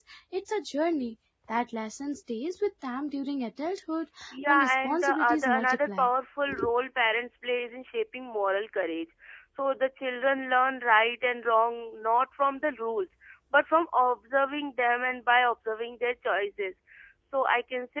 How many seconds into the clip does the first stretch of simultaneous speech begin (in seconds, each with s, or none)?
4.3 s